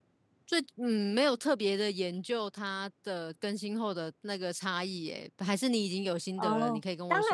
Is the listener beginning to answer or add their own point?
Yes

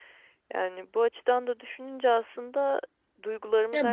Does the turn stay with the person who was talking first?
Yes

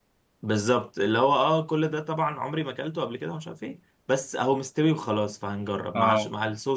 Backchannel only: Yes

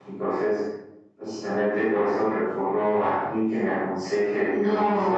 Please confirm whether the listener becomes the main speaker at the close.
Yes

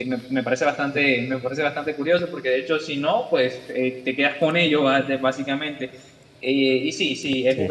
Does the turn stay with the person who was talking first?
Yes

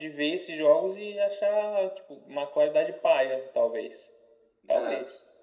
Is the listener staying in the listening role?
No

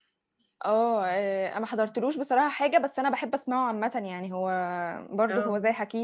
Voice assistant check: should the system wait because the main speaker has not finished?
Yes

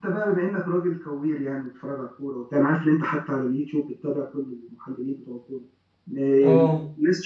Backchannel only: Yes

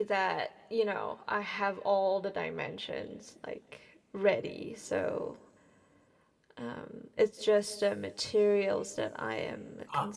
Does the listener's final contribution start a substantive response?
Yes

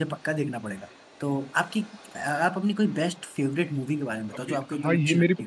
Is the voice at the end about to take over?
Yes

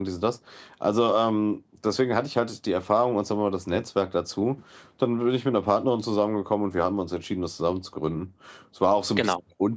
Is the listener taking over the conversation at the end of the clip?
No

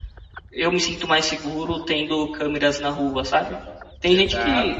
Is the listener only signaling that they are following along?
Yes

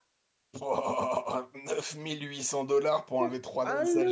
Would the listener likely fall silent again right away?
No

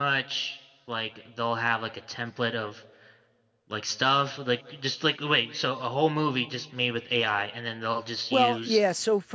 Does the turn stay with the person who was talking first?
No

